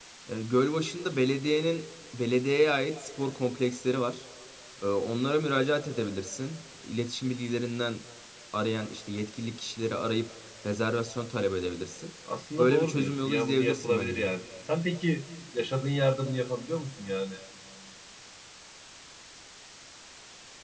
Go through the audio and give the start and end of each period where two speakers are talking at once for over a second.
12.6-14.3

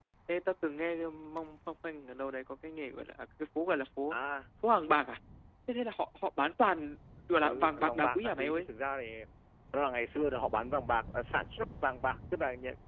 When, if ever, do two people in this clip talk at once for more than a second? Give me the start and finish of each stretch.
7.4-8.7

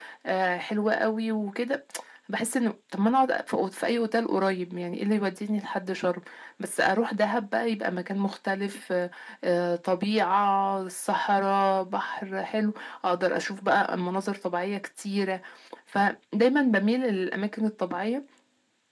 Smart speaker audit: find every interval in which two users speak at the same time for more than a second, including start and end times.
none

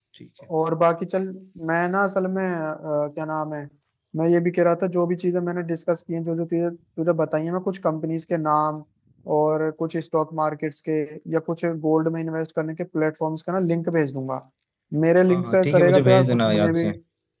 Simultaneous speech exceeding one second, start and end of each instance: 15.3-16.9

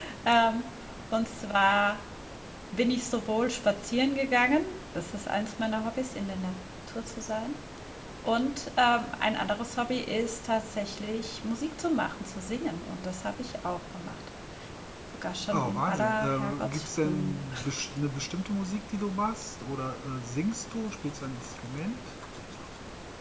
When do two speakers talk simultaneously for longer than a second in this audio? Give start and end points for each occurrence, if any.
15.5-17.3

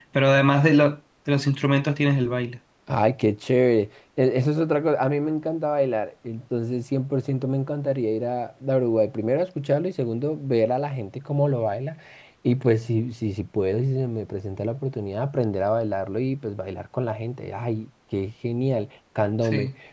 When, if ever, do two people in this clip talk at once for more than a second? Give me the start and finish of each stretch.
none

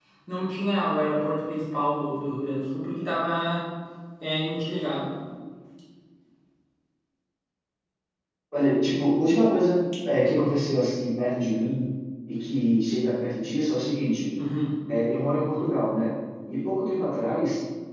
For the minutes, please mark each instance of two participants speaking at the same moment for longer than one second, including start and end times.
none

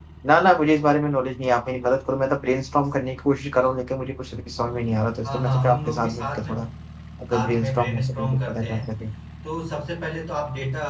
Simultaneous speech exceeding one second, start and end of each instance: 5.2-6.5, 7.3-8.8

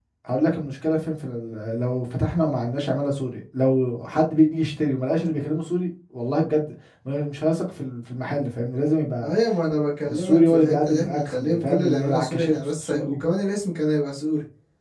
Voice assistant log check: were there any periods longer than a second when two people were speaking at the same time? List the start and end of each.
10.0-13.2

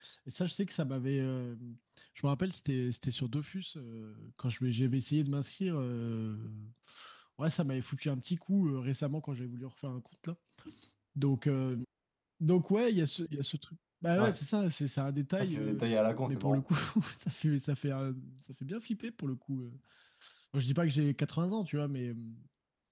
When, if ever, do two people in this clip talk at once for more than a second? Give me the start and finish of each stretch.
none

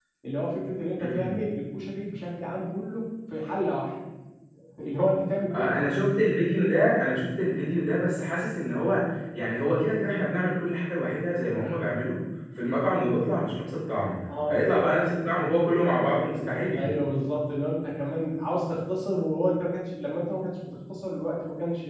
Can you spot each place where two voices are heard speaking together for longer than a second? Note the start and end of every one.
none

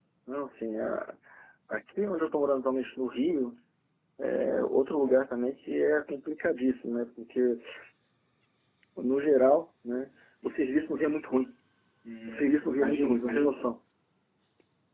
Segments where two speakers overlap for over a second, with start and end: 12.3-13.5

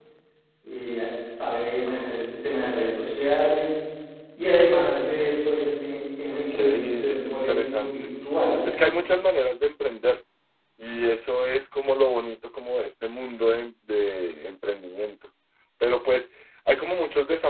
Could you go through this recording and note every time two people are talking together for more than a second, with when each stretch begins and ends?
6.5-8.1

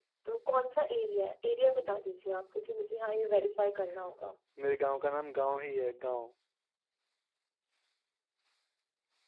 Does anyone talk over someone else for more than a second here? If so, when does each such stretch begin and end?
none

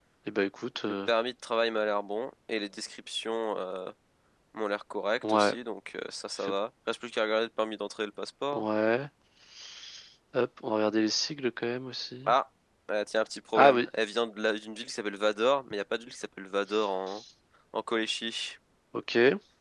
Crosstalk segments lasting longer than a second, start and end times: none

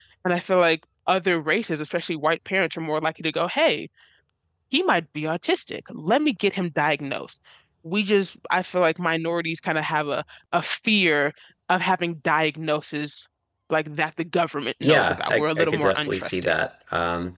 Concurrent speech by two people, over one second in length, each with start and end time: 14.8-16.5

